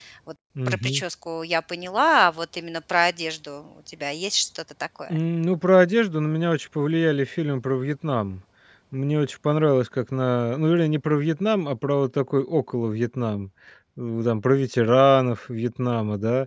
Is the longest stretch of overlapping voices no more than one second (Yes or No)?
Yes